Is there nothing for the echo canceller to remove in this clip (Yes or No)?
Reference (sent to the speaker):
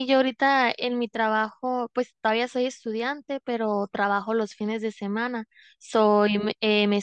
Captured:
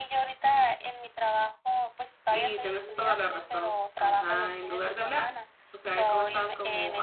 No